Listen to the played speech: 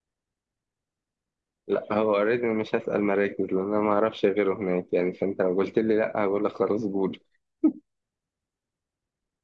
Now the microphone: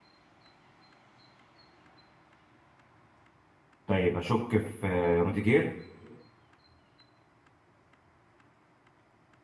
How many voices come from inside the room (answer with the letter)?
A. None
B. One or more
B